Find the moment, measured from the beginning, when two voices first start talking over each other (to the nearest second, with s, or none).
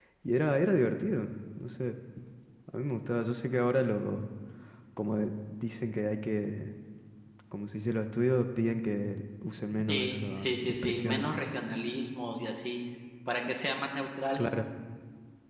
10 s